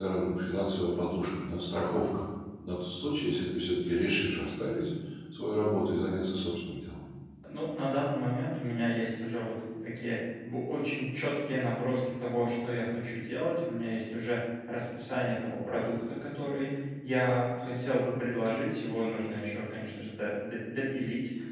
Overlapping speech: No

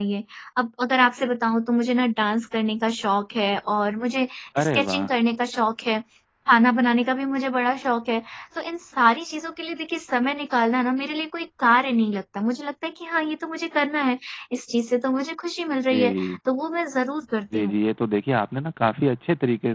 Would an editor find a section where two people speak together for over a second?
No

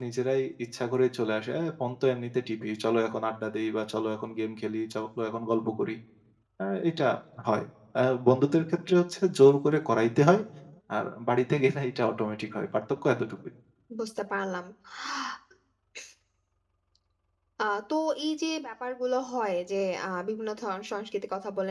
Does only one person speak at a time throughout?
Yes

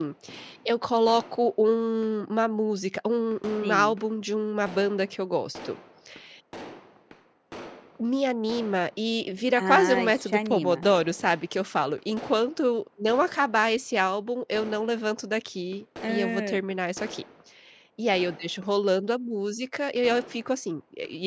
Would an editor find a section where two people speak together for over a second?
Yes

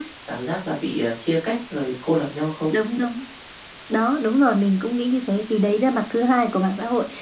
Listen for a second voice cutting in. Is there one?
No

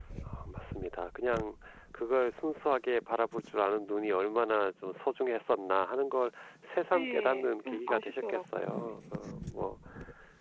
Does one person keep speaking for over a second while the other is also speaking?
Yes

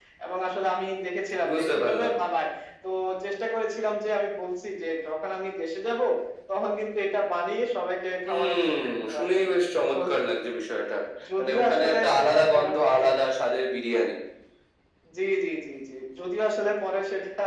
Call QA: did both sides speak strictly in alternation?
No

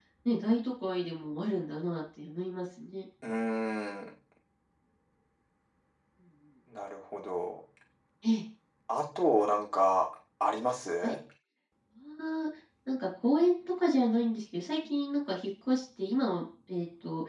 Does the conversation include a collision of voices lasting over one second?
No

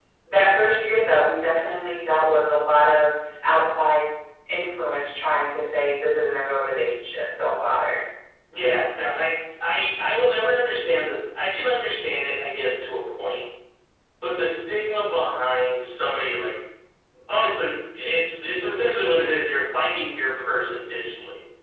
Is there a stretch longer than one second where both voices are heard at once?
No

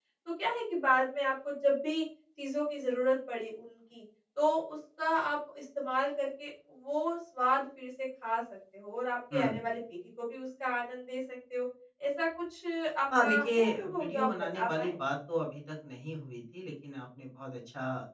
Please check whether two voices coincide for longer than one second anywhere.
Yes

